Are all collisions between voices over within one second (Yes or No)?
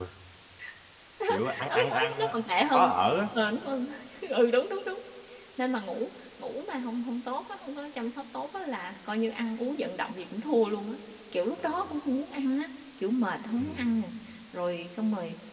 No